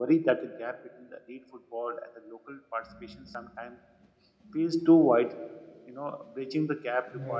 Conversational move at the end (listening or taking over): listening